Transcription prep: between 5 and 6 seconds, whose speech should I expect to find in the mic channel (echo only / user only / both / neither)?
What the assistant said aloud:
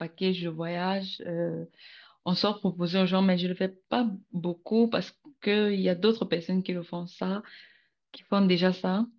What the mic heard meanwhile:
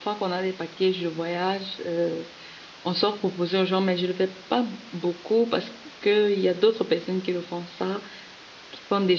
echo only